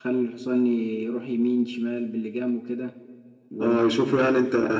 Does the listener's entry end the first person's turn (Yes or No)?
Yes